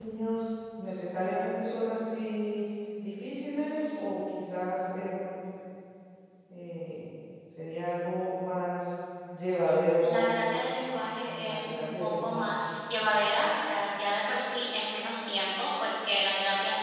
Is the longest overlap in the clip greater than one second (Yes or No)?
Yes